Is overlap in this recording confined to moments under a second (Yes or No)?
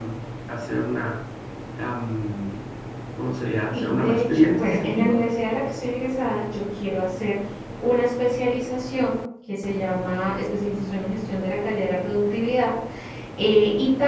No